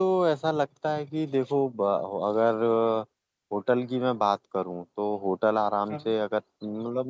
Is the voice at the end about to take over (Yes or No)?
No